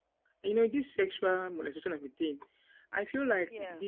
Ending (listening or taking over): listening